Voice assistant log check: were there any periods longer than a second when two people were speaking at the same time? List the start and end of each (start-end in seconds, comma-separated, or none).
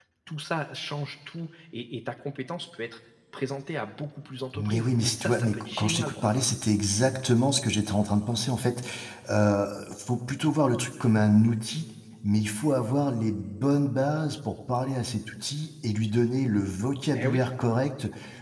4.5-6.4